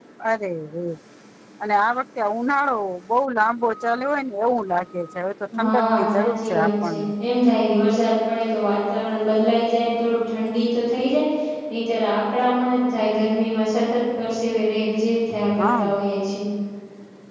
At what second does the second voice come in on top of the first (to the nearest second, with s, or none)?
6 s